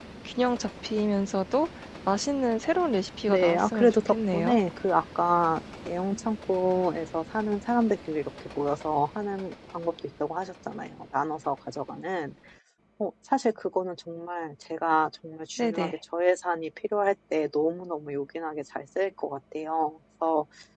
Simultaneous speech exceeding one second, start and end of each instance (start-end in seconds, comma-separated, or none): 3.3-4.6